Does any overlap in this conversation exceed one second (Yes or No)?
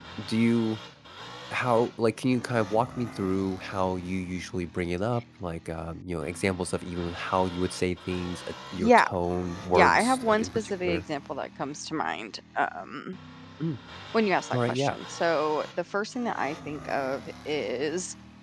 Yes